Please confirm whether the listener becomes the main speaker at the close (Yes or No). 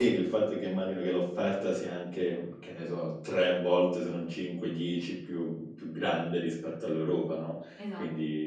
No